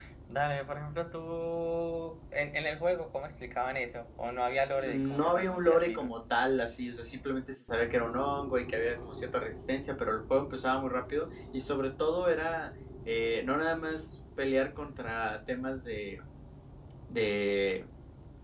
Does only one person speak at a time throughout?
No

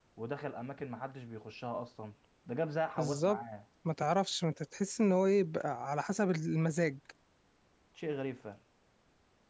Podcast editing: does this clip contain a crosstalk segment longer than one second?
No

